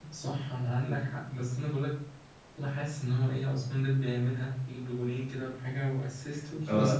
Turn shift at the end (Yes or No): Yes